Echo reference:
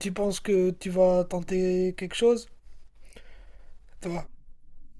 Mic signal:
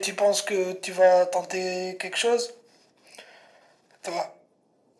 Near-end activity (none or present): none